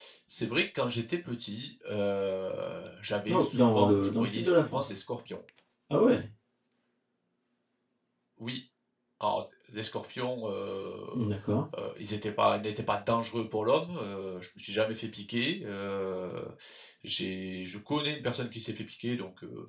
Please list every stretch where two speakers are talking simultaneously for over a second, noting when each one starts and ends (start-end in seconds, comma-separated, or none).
3.3-4.9